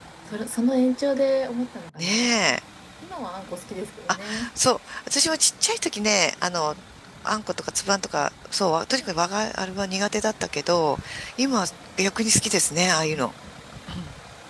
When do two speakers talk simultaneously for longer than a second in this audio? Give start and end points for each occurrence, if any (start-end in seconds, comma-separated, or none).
none